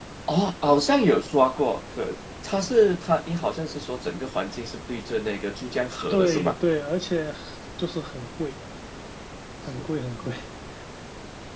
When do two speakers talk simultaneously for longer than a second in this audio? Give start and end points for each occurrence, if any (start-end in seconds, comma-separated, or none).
none